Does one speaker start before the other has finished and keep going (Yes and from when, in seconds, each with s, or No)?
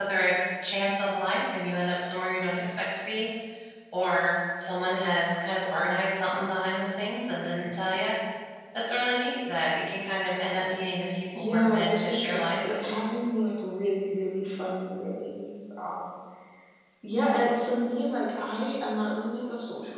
Yes, from 11.3 s